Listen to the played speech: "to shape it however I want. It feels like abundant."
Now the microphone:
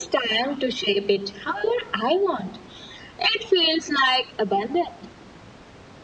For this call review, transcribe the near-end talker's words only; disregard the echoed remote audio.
none

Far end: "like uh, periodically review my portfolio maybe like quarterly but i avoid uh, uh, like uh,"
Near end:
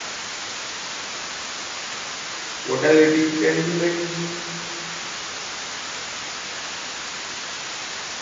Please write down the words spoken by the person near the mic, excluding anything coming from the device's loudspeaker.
volatility can be like

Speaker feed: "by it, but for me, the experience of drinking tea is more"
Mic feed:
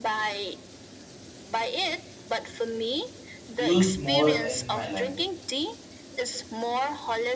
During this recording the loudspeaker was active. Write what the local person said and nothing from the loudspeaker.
use more in my life.

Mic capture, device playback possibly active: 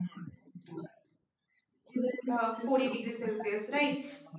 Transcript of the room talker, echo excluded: uh, 40 degrees celsius right

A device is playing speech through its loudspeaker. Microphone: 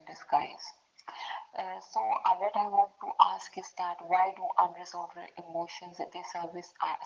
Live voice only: none

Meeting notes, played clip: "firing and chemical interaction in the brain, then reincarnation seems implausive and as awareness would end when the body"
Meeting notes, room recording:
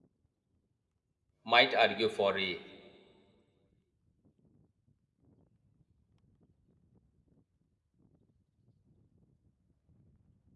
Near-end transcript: might argue for a

